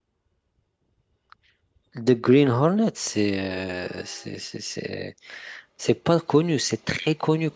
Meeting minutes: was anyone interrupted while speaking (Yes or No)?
No